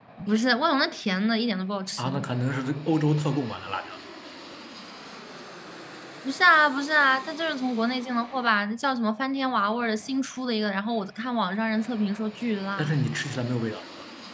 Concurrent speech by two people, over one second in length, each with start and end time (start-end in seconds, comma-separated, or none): none